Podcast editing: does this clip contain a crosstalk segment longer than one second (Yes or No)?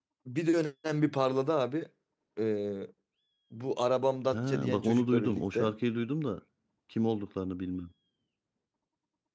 Yes